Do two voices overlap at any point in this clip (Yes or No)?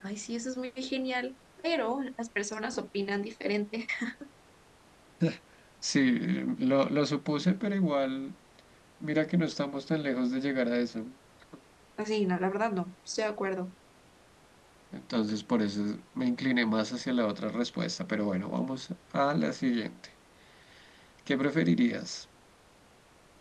No